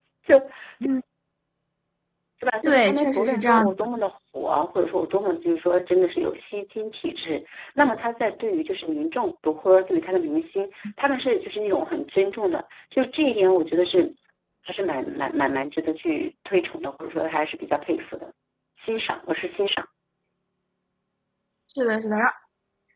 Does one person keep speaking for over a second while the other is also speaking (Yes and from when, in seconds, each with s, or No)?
Yes, from 2.6 s